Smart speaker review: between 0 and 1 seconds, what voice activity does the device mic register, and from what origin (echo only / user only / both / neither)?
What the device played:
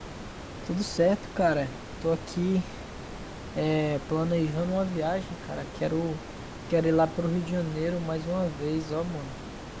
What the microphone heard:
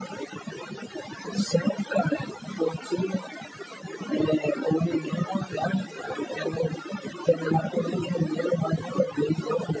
neither